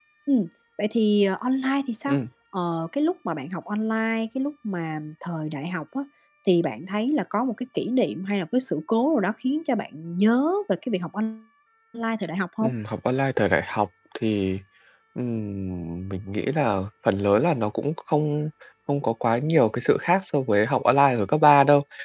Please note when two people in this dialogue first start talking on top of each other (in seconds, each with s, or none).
none